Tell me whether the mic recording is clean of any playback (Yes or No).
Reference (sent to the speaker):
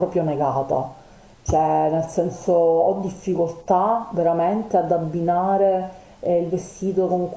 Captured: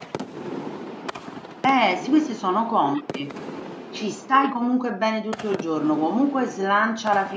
Yes